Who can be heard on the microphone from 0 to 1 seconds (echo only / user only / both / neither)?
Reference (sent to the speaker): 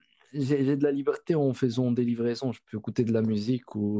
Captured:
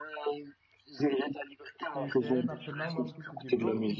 echo only